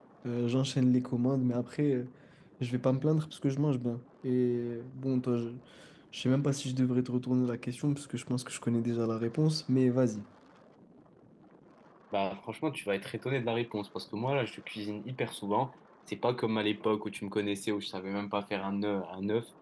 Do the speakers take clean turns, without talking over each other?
Yes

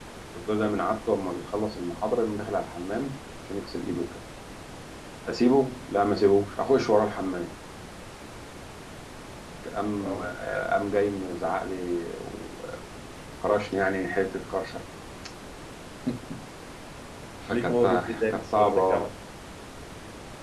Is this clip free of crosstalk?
No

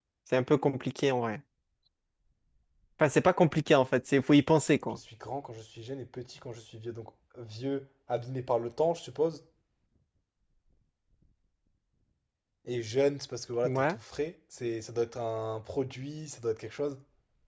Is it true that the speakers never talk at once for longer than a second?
Yes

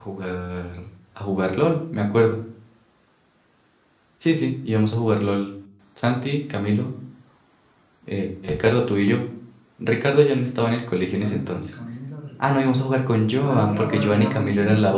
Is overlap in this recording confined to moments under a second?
No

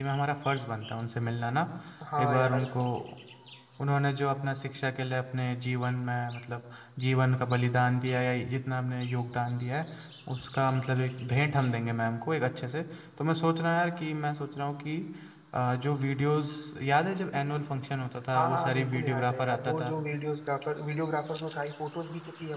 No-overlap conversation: No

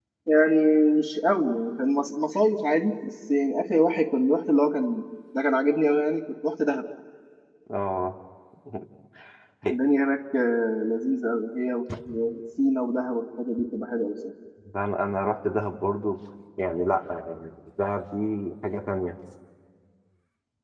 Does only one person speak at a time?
Yes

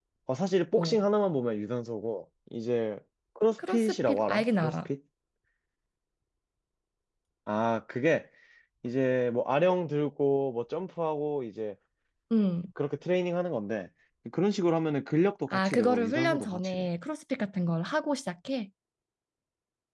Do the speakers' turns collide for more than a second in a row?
Yes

